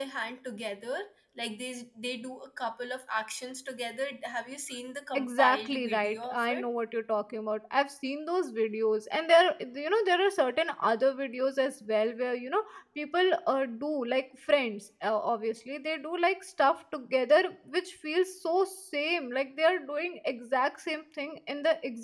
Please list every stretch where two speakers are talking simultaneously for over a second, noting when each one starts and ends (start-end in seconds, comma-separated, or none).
5.1-6.7